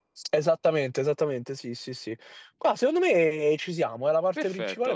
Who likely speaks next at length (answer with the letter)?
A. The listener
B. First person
A